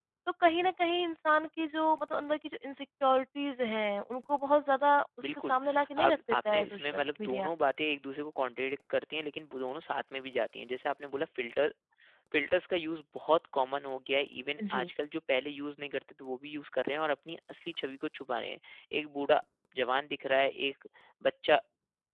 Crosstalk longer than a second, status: present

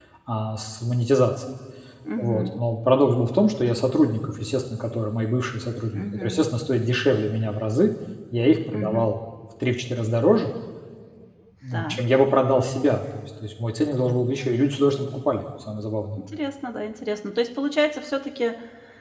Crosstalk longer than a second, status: none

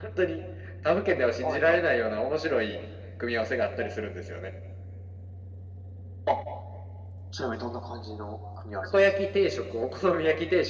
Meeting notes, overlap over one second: none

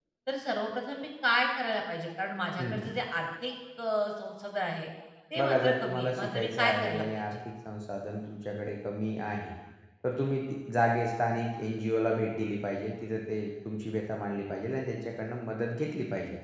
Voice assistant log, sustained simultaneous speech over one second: present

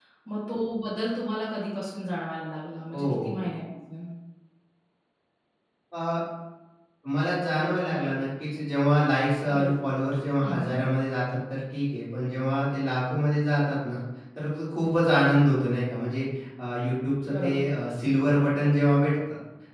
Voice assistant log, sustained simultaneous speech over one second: none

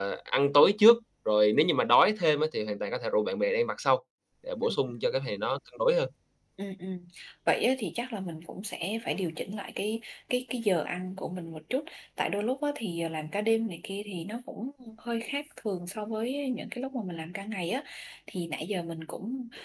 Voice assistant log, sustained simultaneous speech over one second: none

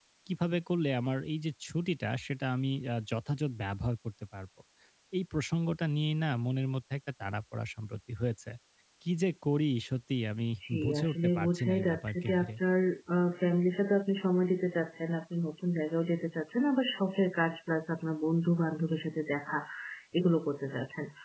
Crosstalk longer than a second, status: present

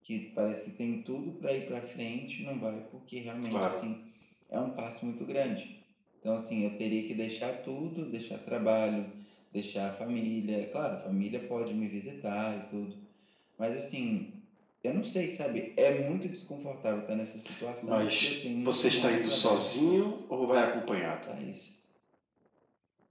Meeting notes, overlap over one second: present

